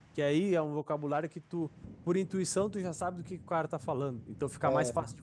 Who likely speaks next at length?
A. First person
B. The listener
A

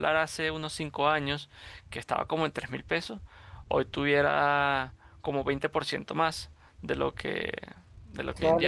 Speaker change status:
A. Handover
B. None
A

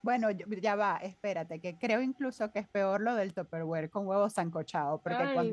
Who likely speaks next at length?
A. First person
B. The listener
A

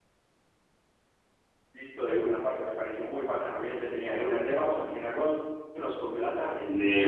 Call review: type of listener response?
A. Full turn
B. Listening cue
A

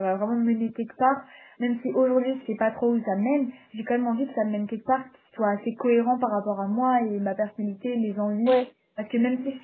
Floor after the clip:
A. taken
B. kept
B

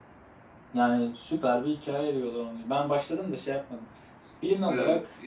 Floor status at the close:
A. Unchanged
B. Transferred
B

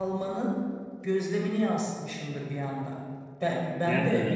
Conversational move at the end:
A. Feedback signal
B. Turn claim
A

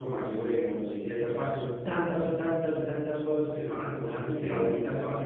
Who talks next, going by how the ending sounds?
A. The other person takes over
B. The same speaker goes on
B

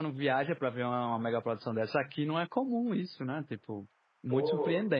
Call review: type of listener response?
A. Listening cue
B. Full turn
B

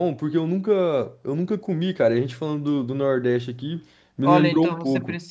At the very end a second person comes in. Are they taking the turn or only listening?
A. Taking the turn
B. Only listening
A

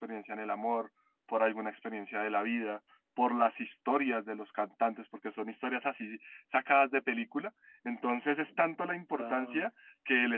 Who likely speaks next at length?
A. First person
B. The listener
A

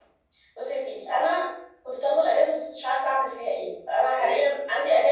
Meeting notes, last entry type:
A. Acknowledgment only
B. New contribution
A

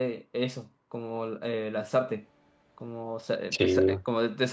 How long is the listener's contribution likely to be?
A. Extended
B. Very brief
B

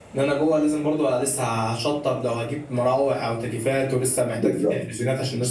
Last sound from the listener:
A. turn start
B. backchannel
B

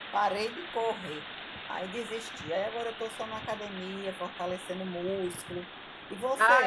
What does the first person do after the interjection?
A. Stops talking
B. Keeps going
A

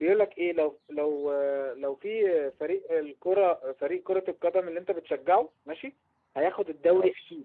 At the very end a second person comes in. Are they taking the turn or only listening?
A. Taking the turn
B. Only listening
B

